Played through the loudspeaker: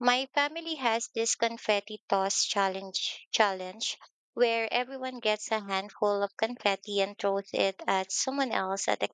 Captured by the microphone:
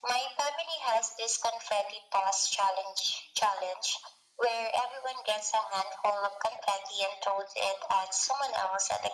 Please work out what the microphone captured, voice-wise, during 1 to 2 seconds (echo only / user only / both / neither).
echo only